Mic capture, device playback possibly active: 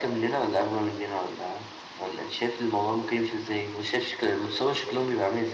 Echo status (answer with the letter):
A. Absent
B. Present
B